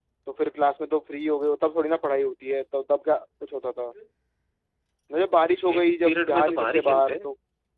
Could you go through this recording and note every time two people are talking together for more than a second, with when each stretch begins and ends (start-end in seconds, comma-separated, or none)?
5.6-7.3